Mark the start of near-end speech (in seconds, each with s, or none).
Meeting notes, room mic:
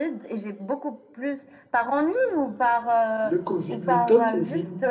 3.2 s